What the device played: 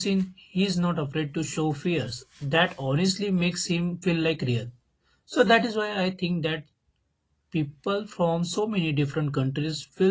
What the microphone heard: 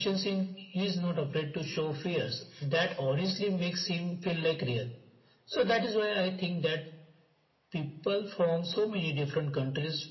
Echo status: present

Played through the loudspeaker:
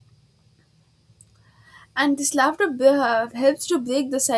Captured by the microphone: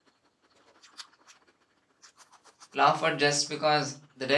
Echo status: none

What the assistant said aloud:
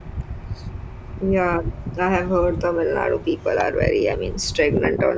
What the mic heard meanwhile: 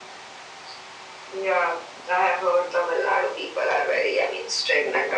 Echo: present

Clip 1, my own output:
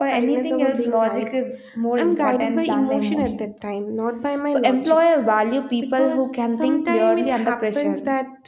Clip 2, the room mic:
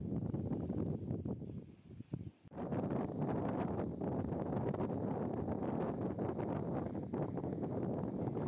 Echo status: none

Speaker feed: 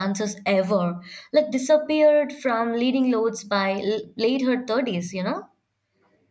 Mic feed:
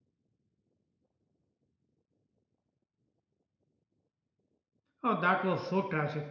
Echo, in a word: none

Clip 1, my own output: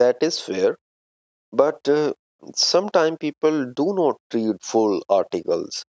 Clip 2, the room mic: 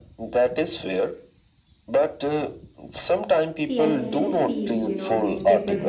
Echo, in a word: present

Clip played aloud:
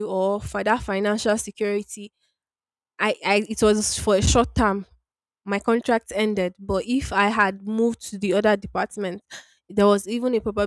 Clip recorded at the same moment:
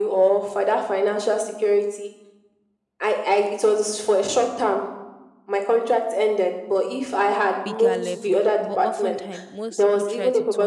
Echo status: present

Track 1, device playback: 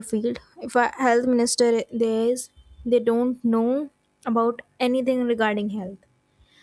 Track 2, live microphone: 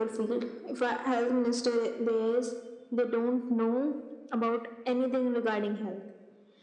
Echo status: present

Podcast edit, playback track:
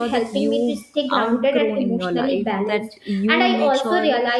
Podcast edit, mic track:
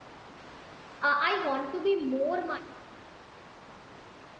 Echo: none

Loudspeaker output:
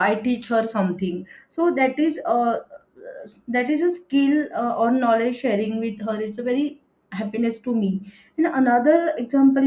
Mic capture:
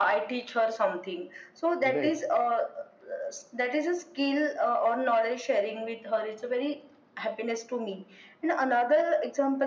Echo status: present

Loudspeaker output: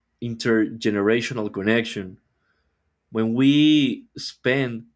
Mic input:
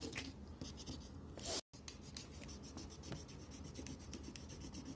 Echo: none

